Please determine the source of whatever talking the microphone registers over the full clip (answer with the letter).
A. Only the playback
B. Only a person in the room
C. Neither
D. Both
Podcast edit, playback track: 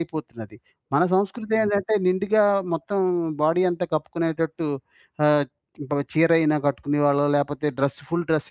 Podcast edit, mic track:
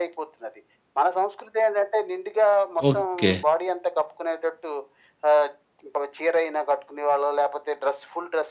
D